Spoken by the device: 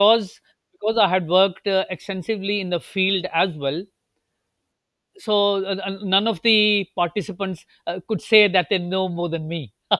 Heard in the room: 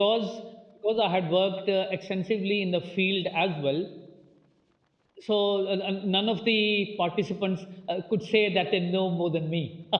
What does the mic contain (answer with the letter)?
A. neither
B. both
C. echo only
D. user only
C